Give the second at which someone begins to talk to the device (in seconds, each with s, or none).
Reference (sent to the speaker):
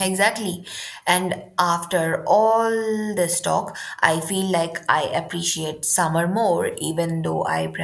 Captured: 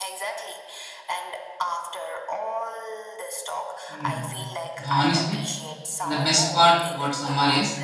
3.9 s